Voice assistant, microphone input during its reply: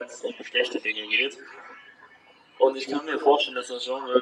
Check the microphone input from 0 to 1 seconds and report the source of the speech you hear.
echo only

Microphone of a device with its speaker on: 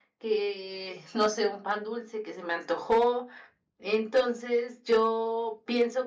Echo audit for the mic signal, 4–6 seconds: echo only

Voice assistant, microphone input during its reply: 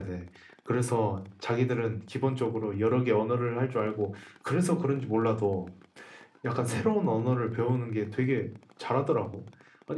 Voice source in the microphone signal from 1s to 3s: echo only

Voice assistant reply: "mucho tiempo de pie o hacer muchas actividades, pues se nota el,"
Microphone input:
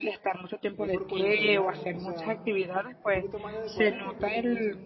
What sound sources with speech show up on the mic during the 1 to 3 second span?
both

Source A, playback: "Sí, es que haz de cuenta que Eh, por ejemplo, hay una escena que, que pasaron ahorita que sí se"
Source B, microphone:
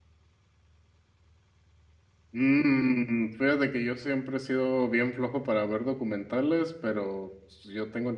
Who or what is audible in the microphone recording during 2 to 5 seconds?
user only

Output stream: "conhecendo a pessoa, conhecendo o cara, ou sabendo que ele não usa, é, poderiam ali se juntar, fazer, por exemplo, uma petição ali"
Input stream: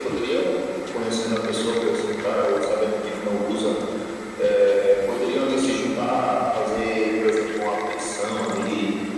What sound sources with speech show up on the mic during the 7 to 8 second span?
echo only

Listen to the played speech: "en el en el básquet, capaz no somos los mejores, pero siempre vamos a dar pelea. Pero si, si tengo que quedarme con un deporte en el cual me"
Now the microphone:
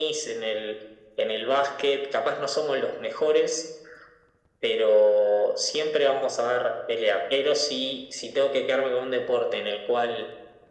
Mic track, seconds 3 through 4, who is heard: echo only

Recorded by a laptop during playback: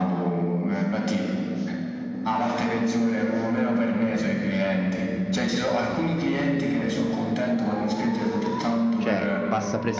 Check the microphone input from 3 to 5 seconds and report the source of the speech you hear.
echo only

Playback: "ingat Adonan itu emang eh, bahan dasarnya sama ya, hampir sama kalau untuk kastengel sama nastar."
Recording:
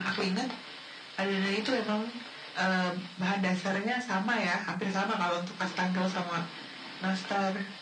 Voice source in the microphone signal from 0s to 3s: echo only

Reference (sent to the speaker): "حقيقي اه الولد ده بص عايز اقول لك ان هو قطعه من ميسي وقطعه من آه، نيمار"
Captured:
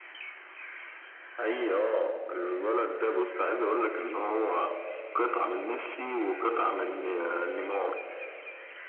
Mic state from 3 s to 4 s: echo only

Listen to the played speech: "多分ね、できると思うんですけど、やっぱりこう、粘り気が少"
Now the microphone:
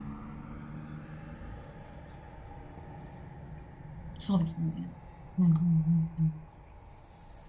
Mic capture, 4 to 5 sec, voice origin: user only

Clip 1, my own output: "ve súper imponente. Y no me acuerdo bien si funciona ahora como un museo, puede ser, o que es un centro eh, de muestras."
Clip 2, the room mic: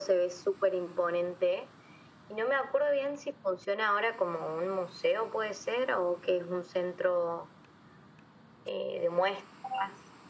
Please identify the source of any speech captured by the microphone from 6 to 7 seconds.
echo only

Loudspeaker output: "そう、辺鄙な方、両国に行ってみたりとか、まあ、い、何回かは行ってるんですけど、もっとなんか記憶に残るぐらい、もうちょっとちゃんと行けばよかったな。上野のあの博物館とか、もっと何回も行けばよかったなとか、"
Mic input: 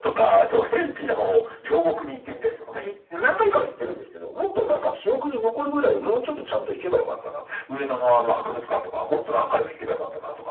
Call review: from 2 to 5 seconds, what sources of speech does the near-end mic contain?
echo only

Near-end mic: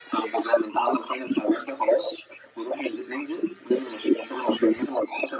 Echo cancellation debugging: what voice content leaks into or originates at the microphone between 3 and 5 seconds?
echo only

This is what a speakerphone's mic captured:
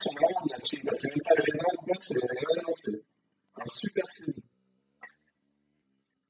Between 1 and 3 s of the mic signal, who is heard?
echo only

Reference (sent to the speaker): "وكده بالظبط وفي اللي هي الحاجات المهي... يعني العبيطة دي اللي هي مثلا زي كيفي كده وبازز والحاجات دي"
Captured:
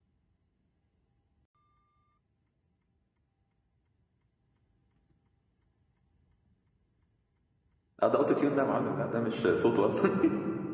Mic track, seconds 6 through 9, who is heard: user only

